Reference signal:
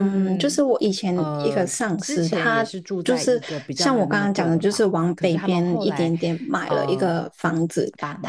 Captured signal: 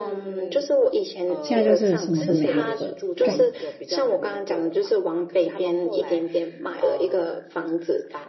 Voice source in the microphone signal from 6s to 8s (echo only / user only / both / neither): echo only